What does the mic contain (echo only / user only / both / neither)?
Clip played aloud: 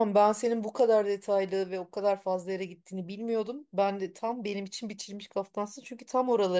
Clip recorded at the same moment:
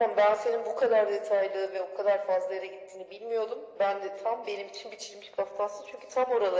echo only